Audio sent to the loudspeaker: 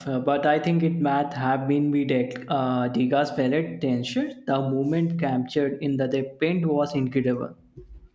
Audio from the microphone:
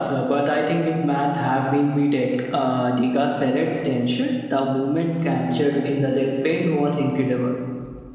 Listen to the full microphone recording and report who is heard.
echo only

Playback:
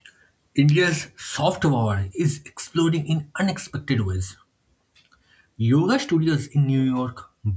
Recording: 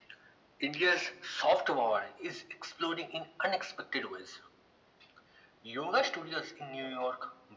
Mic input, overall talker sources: echo only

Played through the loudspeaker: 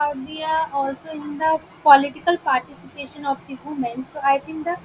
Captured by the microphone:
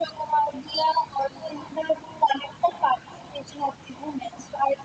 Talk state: echo only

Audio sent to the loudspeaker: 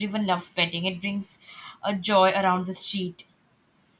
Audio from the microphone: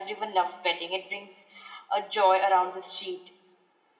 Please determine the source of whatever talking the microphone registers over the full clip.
echo only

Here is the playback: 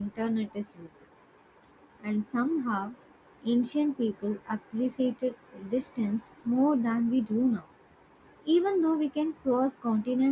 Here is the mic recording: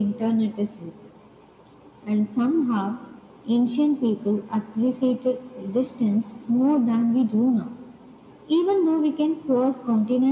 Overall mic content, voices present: echo only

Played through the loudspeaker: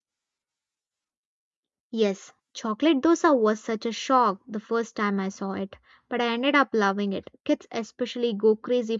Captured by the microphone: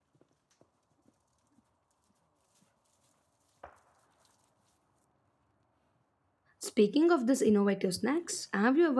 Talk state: user only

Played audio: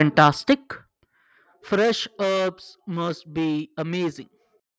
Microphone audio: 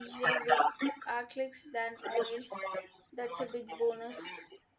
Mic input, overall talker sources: both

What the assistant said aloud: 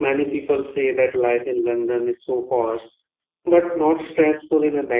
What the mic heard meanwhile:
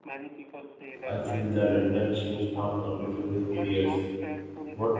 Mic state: both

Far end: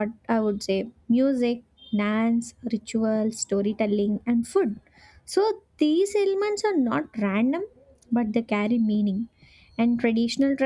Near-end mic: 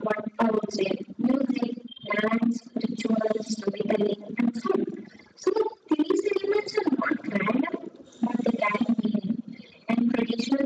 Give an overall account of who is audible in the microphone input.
echo only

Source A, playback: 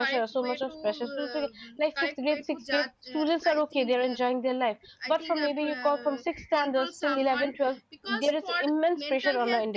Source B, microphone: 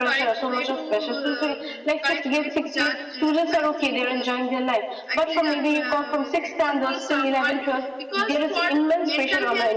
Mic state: echo only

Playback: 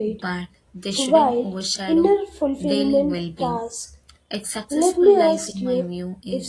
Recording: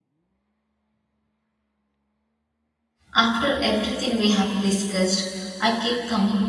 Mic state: user only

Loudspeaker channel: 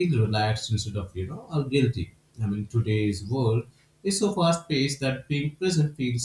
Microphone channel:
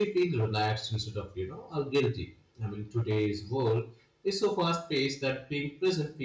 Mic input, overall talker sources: echo only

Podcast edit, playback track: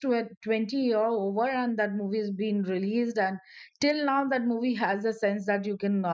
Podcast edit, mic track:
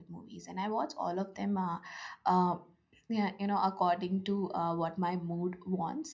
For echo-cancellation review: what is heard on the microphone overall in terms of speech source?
user only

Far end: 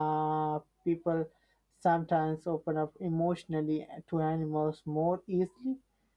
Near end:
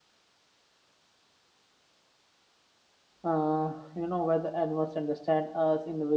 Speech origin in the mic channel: user only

